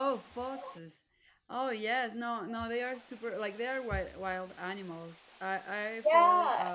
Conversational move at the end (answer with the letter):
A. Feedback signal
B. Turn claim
B